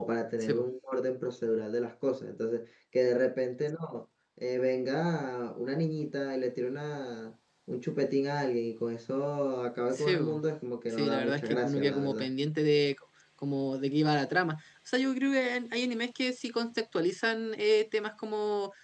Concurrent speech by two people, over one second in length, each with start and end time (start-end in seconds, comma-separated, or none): 10.9-12.3